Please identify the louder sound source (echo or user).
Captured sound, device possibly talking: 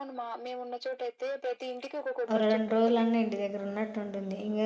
user